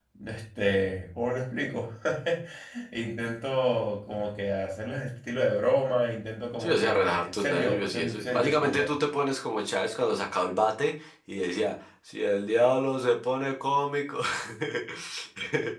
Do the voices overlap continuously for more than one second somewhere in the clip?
Yes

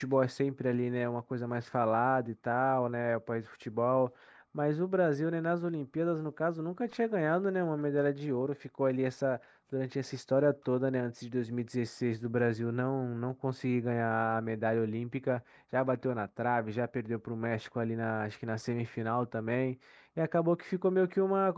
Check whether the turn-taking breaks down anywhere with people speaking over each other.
No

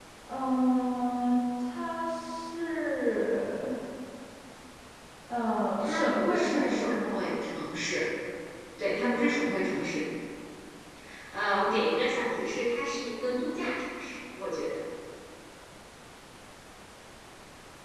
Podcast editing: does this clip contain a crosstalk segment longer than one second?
Yes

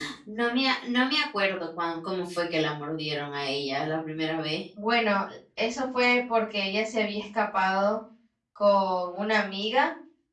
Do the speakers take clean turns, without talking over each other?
Yes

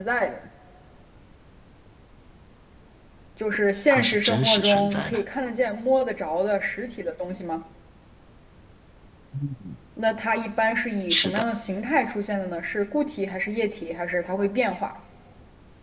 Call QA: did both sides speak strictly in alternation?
No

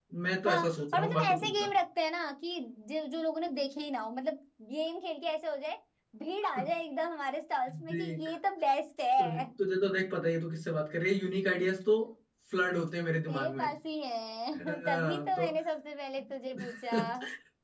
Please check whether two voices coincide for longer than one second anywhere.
Yes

